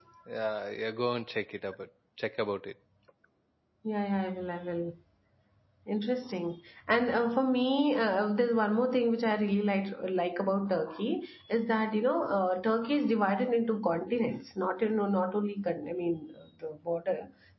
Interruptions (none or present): none